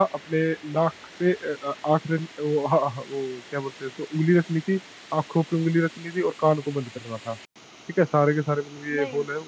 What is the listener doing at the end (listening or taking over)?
listening